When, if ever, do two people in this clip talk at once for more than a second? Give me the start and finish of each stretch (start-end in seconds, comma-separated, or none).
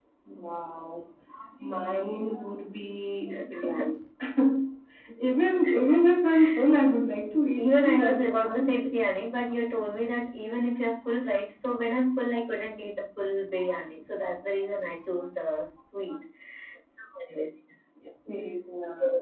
7.6-8.9